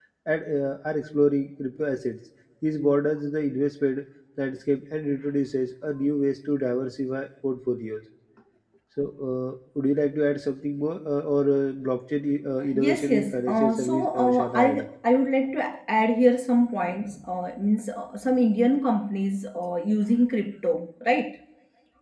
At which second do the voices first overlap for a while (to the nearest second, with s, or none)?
13 s